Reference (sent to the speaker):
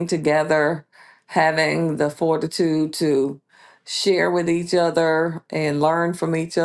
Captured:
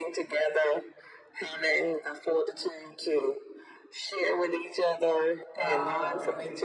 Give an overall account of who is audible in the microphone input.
both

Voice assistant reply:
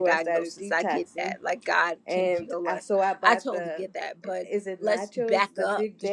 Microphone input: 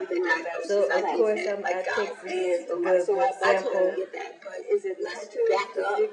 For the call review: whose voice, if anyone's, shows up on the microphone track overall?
both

